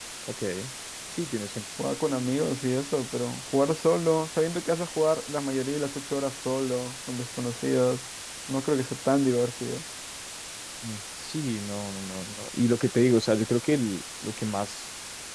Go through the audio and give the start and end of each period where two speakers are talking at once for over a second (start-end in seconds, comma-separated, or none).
none